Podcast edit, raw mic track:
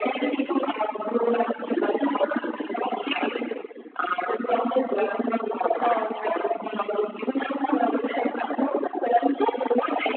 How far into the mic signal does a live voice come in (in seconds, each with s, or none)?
5.8 s